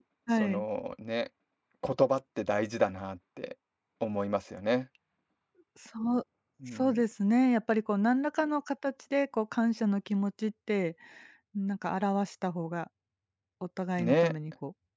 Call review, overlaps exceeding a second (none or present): none